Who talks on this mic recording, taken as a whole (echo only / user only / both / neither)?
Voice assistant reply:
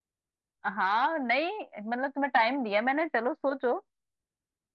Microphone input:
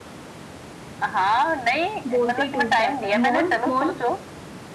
both